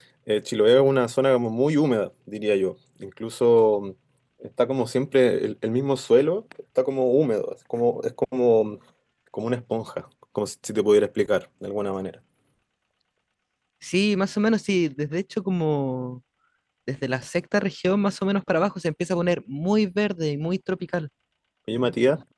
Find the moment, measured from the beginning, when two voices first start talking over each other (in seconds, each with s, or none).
none